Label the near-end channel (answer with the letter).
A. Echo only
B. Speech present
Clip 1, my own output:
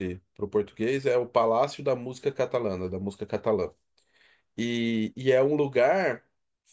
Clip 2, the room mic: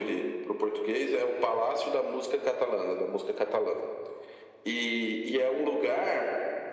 A